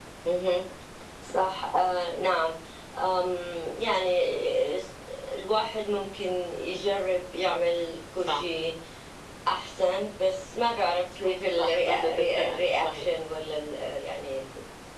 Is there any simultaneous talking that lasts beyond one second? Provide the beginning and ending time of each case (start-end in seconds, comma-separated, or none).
11.6-13.1